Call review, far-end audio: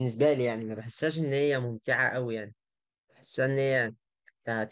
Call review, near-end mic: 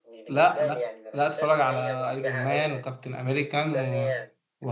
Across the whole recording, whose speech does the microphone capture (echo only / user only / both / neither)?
both